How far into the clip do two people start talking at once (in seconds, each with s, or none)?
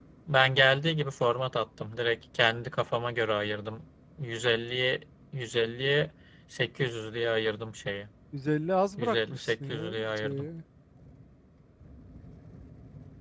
9.0 s